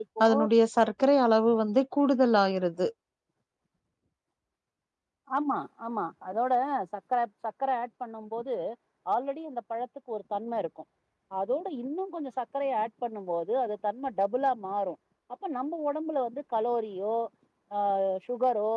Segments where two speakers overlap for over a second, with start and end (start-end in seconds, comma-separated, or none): none